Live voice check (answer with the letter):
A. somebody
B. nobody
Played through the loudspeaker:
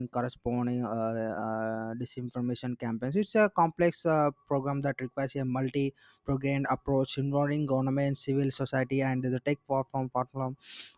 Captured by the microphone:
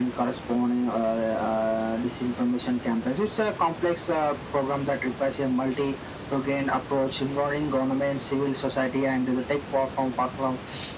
B